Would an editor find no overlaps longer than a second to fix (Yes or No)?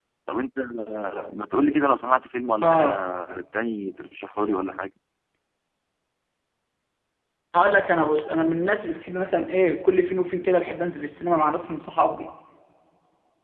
Yes